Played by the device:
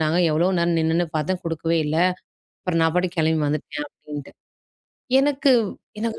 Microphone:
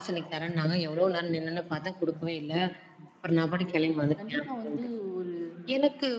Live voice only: கண்டிப்பா வந்து ஒரு

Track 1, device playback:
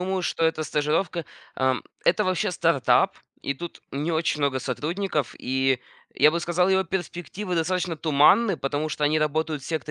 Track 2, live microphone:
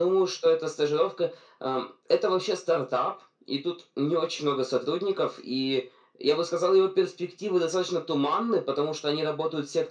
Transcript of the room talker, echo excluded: none

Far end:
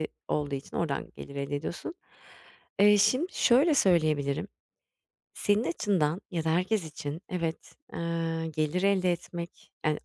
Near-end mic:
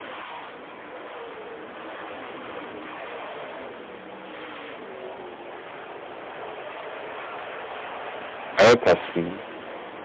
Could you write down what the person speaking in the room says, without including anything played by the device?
Evet aslında.

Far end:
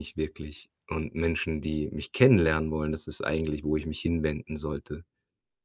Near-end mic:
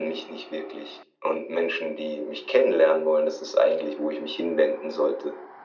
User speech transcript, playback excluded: none

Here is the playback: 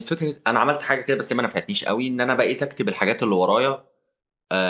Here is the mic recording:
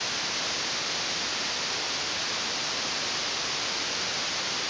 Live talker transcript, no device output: none

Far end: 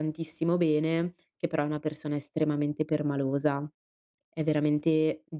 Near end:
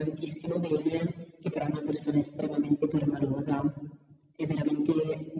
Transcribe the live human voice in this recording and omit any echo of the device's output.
none

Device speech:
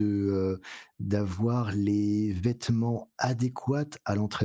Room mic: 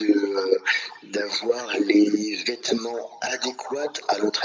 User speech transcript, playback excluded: none

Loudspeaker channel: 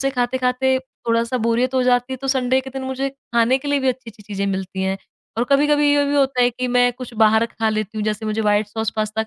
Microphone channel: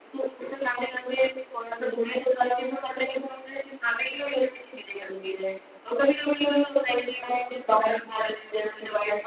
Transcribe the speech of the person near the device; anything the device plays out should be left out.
none

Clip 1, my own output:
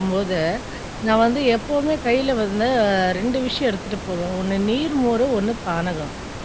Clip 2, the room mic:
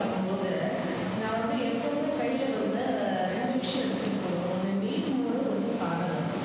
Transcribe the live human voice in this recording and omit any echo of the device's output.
none

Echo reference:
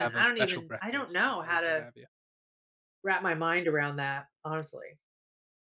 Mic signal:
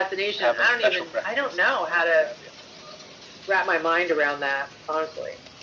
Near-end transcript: none

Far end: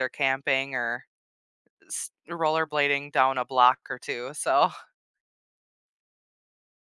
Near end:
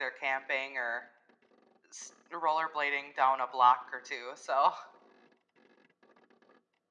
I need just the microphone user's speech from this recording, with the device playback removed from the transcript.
none

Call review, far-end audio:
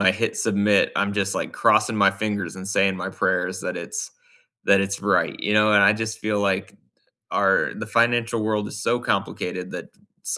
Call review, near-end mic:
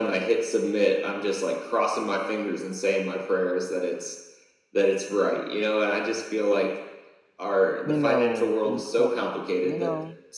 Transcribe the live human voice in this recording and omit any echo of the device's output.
you know, important, you know?

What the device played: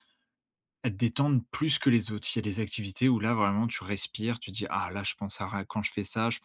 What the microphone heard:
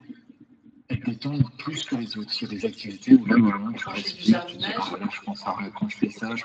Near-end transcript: quand je fais du jardinage,

